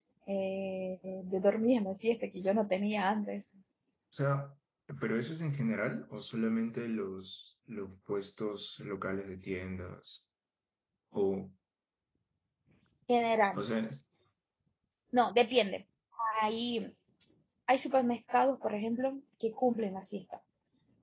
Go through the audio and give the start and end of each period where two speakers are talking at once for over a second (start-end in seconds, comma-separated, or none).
none